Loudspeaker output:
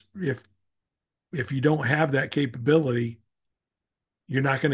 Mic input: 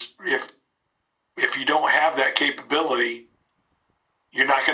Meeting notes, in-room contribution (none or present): none